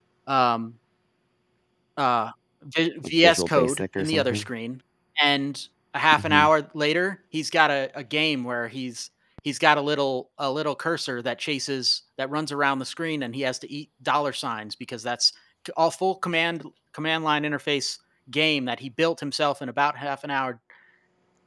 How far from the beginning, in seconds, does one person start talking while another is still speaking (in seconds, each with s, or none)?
3.0 s